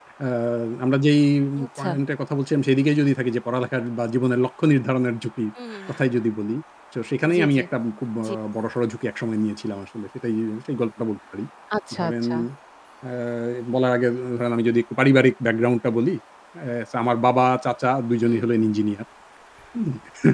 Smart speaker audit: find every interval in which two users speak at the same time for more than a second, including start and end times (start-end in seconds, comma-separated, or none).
none